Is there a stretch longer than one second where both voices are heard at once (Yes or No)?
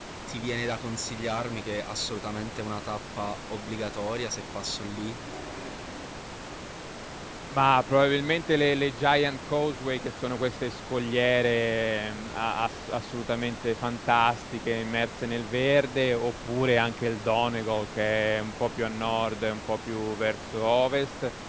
No